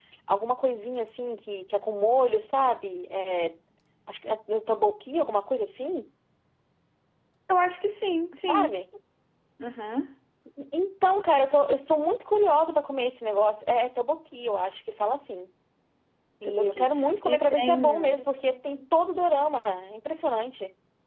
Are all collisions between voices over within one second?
No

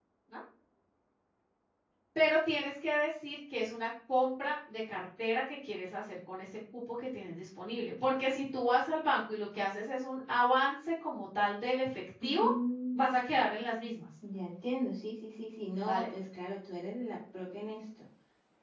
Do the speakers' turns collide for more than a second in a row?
No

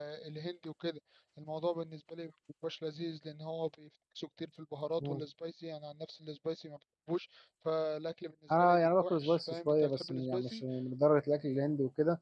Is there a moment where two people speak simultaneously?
Yes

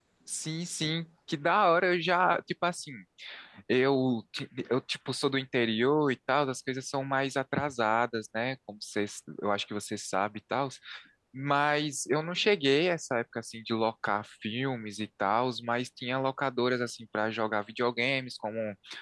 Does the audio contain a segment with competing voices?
No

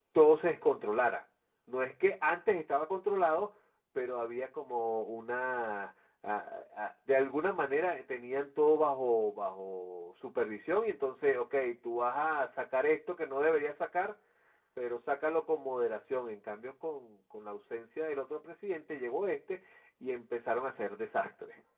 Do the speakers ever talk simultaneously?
No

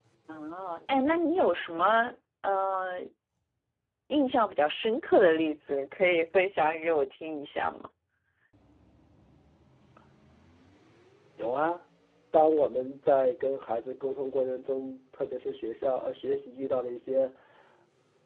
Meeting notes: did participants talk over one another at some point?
No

